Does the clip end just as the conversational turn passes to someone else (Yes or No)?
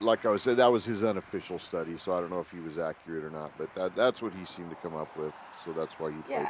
Yes